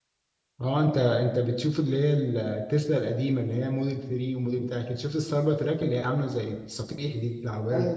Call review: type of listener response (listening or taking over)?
taking over